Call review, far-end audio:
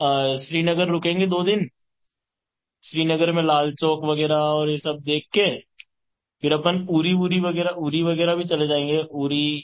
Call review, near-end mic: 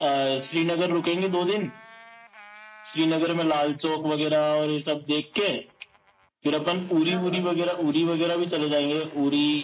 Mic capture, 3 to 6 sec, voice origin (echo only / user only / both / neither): echo only